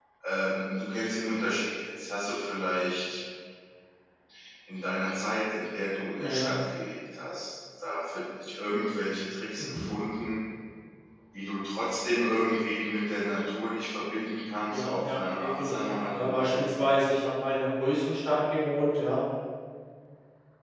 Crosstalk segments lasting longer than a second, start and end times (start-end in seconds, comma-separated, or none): 14.7-16.7